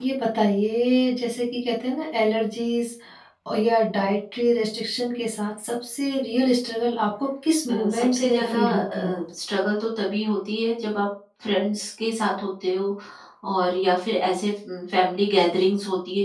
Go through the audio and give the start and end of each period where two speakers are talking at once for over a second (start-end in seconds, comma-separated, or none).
7.7-9.2